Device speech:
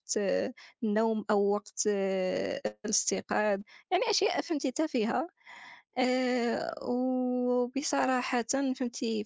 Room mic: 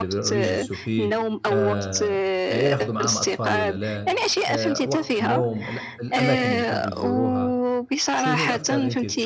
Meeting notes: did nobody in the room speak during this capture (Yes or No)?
No